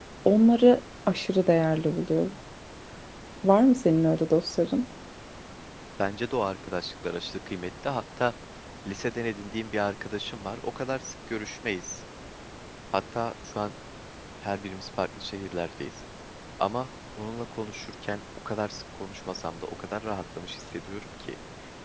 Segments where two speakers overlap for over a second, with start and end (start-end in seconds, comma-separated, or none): none